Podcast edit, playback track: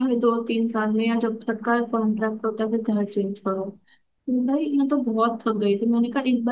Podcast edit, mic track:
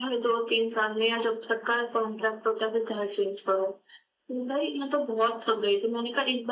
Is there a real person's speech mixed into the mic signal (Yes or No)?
No